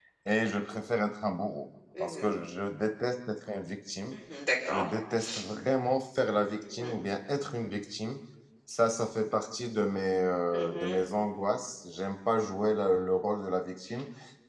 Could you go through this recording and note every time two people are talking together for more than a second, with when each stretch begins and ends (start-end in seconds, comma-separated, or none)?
none